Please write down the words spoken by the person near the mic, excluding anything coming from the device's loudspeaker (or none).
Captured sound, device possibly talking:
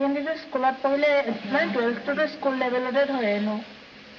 আপোনাৰ